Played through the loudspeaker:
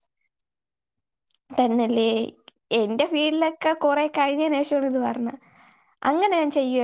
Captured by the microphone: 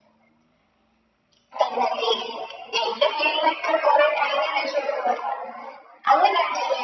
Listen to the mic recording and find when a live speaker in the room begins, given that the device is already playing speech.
none

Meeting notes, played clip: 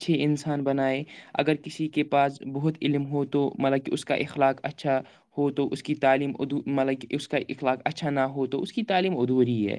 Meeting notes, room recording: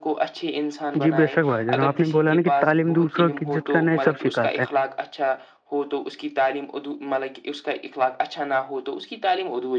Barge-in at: 1 s

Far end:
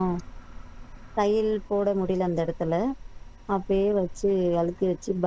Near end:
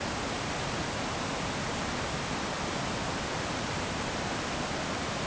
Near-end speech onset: none

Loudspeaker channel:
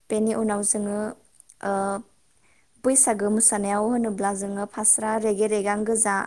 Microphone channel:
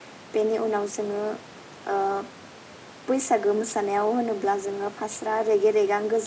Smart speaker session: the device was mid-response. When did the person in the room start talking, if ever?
none

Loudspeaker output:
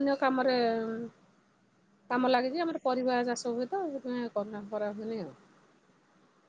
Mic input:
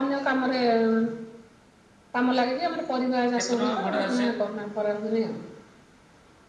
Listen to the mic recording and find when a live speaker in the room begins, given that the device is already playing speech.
3 s

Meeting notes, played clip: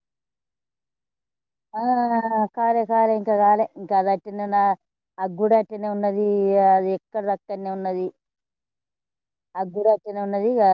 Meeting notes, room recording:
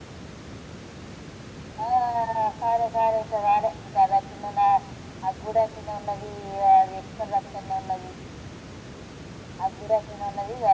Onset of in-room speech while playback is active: none

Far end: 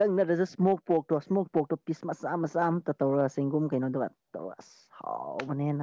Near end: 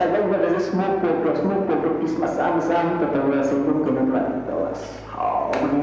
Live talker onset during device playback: none

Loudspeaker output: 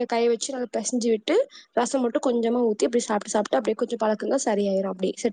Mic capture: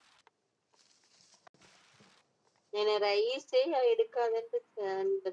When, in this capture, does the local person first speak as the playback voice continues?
3 s

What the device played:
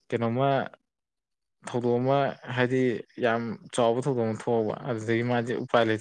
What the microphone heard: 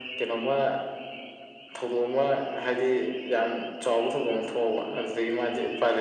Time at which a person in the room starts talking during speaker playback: none

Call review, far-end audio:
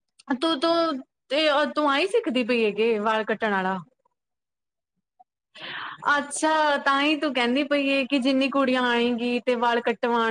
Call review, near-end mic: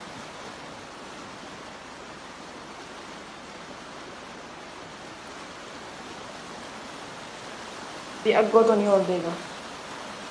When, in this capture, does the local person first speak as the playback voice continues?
8 s

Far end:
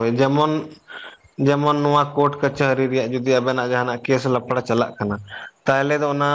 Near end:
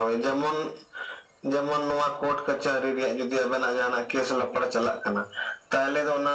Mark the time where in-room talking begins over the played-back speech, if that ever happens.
none

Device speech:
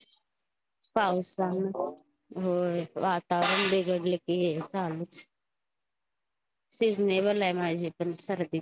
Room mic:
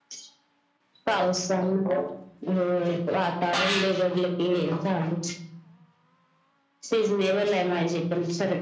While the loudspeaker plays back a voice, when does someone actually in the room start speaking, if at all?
none

